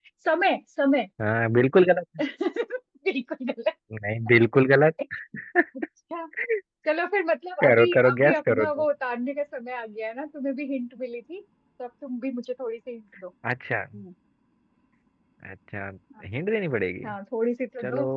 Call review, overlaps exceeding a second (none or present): present